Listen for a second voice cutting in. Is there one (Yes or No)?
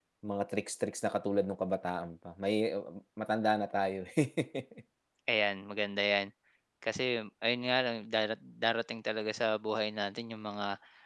No